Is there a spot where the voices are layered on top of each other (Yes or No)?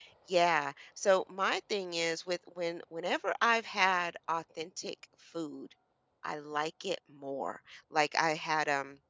No